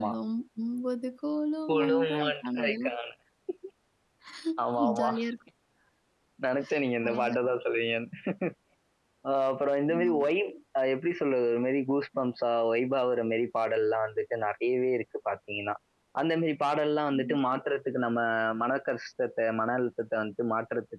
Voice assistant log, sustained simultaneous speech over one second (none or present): present